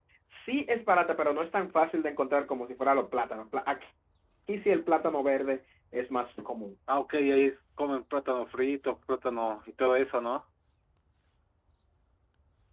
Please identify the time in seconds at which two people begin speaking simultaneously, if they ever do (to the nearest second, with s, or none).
none